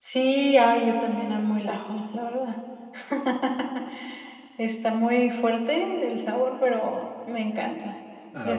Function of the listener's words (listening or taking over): taking over